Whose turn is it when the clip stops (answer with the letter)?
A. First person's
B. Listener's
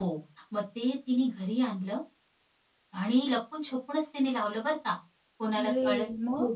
A